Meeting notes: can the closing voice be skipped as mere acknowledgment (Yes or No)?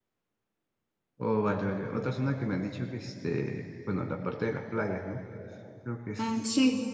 No